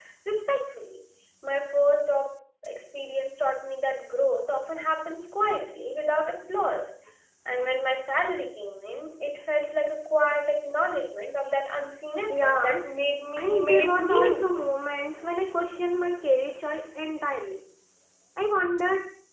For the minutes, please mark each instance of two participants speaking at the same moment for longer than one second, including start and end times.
13.4-14.6

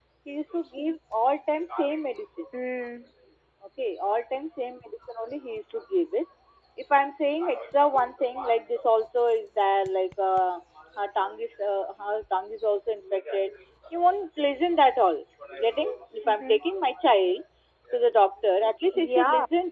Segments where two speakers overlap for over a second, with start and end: none

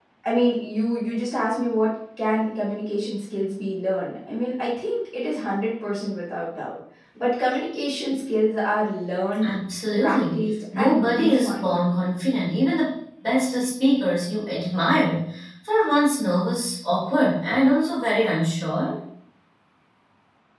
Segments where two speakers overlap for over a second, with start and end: 9.9-11.7

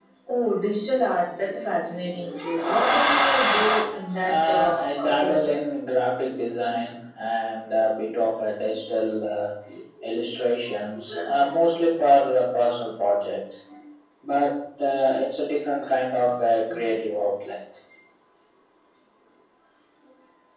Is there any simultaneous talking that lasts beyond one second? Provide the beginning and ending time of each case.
4.2-5.6

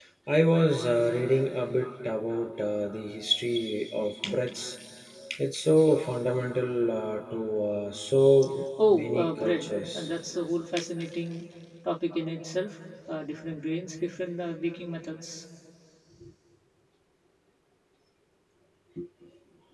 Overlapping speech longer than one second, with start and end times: 8.9-10.1

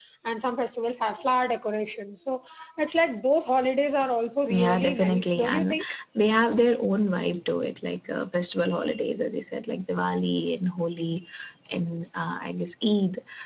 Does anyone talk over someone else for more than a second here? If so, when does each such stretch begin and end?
4.5-5.8

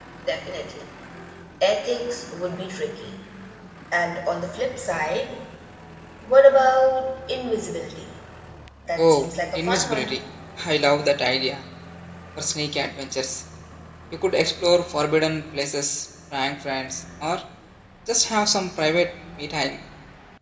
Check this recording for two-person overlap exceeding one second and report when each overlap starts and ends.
9.0-10.2

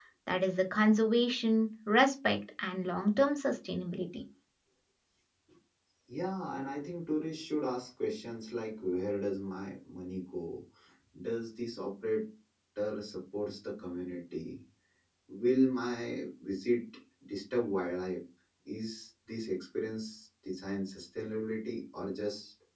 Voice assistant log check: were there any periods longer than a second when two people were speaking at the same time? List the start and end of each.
none

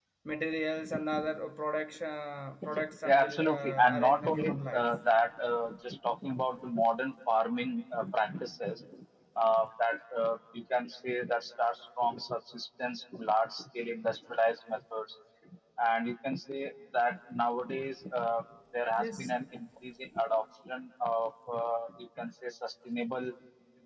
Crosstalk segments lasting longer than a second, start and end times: 3.0-4.8

